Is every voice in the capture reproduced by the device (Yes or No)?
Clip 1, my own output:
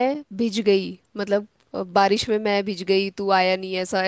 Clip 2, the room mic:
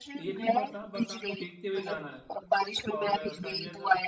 No